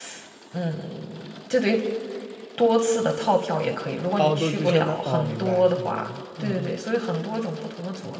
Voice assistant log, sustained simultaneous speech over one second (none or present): present